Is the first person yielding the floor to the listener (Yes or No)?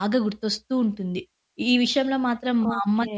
No